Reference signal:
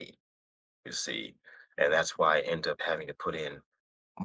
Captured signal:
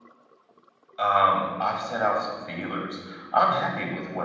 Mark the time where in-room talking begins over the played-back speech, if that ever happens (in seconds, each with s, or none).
1.0 s